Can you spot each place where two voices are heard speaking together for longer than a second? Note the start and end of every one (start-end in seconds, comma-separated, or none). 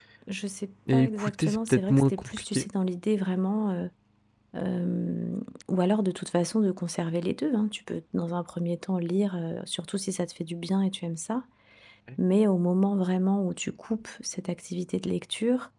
0.9-2.7